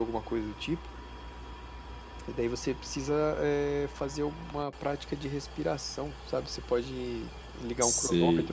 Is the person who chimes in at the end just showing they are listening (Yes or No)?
No